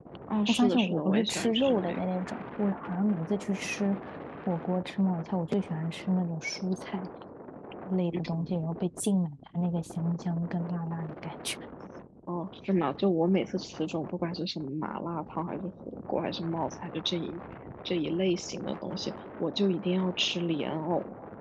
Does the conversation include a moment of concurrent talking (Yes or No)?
Yes